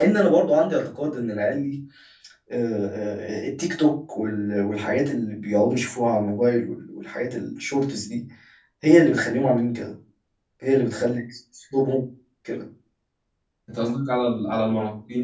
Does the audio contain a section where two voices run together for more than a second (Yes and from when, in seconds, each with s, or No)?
No